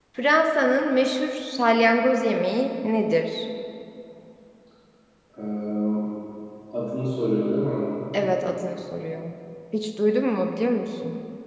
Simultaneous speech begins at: none

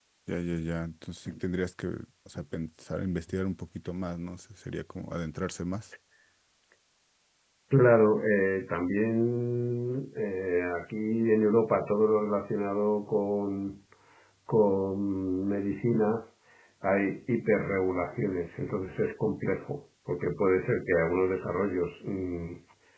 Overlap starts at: none

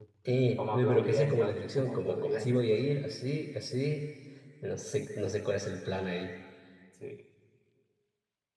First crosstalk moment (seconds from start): 0.6 s

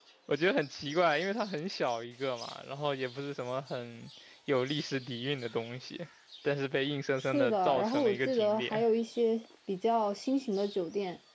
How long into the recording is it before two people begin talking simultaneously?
7.2 s

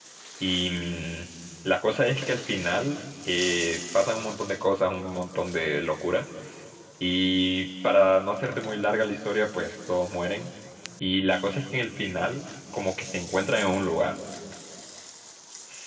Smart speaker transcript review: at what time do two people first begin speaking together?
none

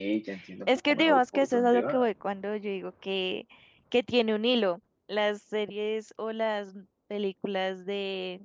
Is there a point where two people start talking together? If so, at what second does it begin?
0.7 s

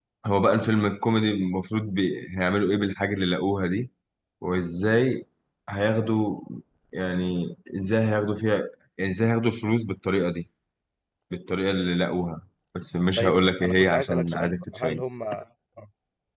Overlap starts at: 13.2 s

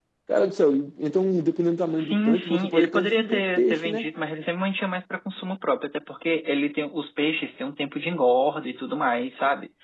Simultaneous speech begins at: 2.0 s

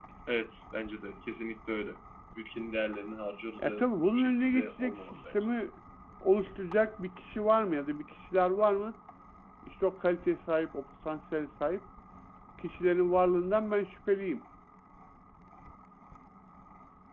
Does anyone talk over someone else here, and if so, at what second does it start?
3.6 s

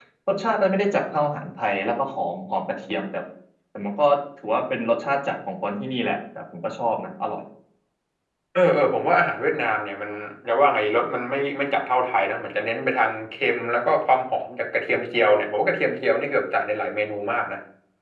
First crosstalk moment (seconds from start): none

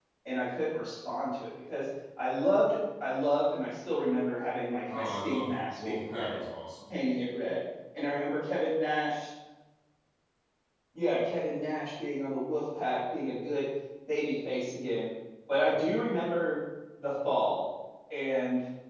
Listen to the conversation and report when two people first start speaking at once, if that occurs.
4.9 s

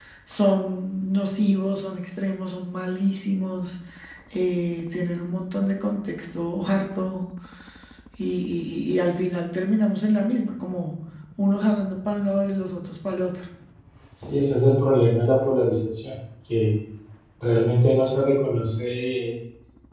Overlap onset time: none

